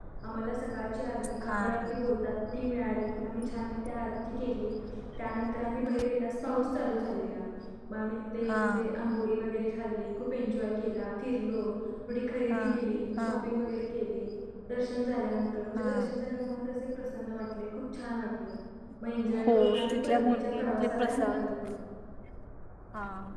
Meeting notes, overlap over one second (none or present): present